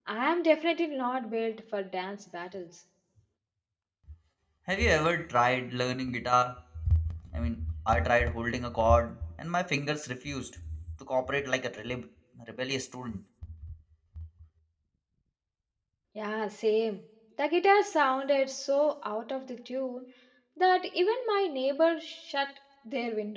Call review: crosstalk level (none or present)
none